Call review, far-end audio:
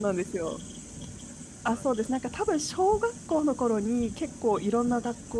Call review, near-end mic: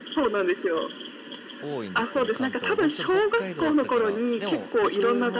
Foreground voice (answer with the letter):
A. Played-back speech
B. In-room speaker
A